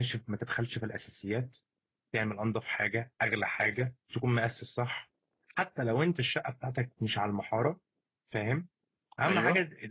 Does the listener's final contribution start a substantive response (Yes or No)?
No